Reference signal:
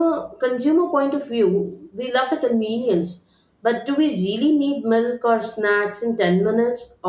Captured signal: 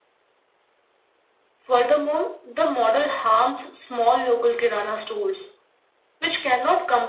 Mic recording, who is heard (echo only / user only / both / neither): user only